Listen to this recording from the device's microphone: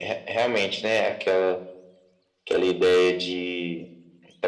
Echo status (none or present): present